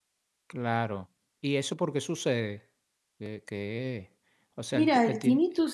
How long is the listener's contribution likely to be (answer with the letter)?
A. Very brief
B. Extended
B